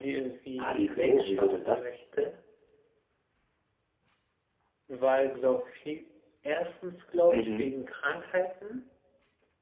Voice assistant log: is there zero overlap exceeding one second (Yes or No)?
No